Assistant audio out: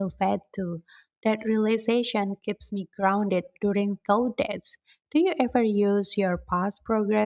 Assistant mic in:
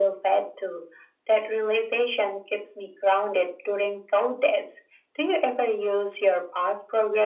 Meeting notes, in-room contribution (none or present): none